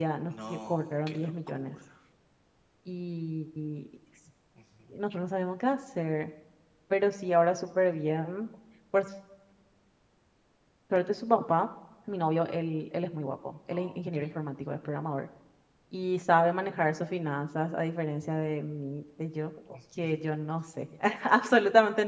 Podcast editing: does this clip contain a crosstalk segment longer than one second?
Yes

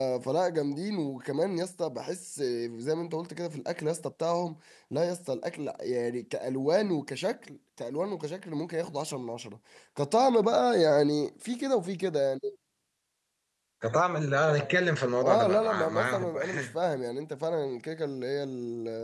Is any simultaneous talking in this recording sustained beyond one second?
Yes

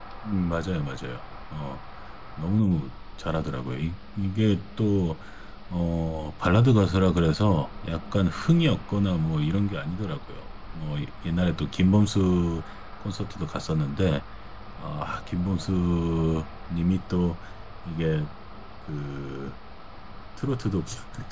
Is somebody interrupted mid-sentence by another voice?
No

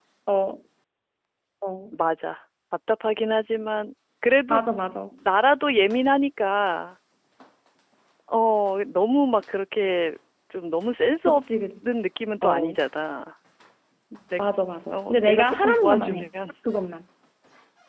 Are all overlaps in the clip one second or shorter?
No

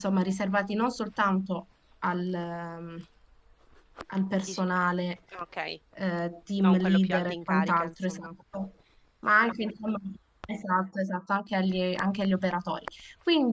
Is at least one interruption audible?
Yes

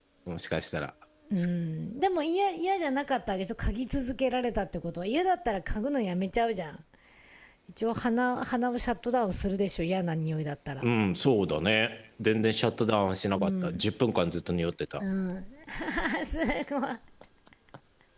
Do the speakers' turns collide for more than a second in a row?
No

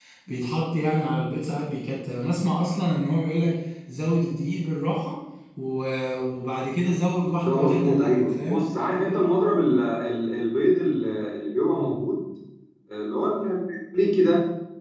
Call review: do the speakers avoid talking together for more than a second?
No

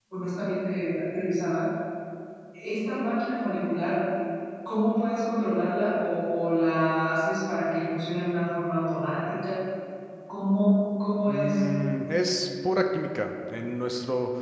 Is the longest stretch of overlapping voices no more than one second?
Yes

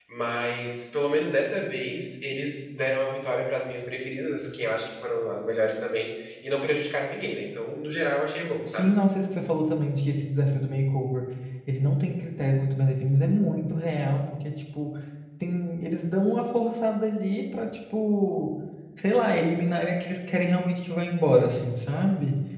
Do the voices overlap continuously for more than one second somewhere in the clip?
No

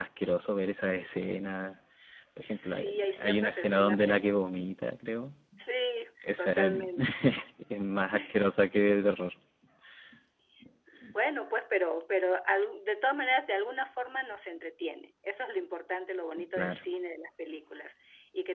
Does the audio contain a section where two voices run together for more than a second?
Yes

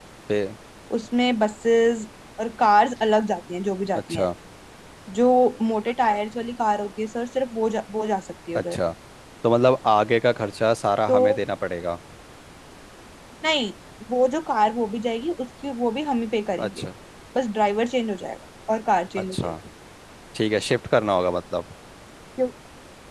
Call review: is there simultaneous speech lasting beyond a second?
No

